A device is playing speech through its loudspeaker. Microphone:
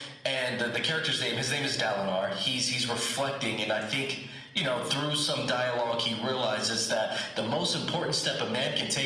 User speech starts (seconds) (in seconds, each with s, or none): none